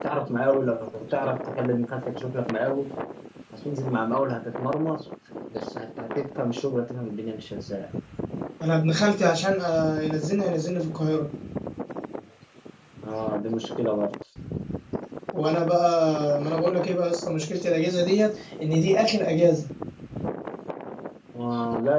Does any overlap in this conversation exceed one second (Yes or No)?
No